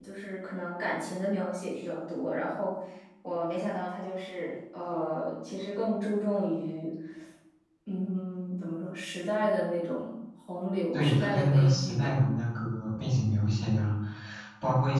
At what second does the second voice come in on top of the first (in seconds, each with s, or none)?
10.9 s